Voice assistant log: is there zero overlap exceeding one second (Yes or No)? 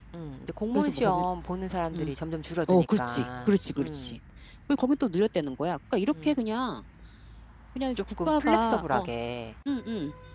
No